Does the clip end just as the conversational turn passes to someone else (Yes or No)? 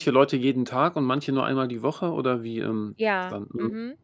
Yes